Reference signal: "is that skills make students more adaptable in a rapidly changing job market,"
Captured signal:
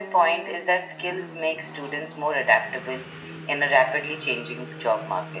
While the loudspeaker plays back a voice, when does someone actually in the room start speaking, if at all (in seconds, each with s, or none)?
none